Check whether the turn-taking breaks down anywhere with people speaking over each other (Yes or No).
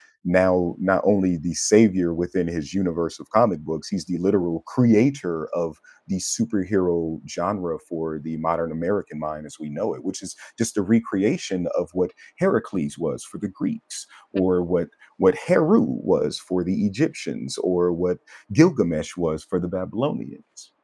No